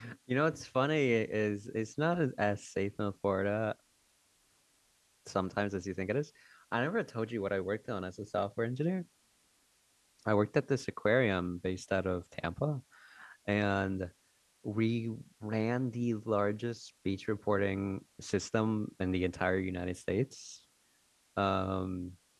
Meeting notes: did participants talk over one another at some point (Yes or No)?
No